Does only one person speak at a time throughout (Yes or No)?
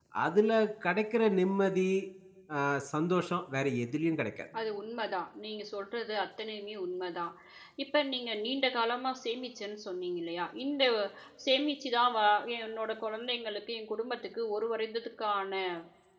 Yes